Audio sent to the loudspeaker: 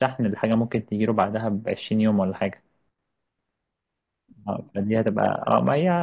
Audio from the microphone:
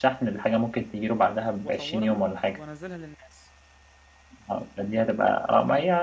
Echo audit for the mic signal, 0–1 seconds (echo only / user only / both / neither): echo only